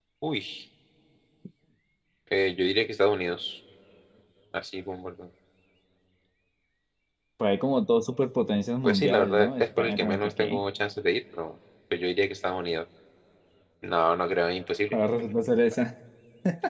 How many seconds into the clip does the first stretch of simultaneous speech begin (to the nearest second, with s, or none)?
9 s